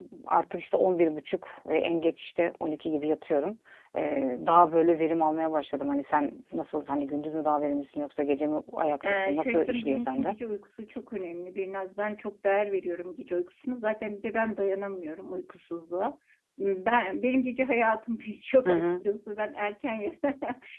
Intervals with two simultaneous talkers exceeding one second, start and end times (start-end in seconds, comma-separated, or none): 9.1-10.3